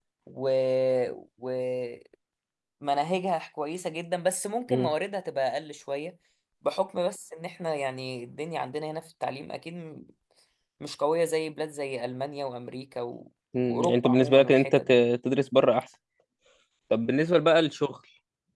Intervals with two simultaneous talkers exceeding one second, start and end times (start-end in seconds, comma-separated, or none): 13.7-15.0